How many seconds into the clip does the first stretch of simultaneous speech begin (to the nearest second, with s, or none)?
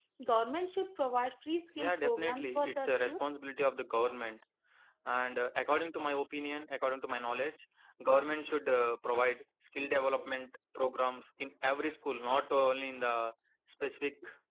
2 s